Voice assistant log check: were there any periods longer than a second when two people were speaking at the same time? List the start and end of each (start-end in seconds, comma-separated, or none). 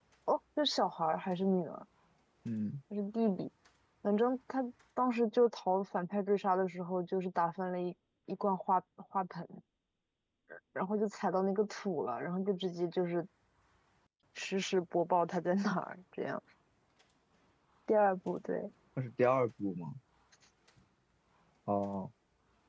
none